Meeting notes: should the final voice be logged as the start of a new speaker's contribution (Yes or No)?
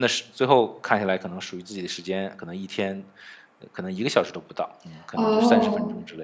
Yes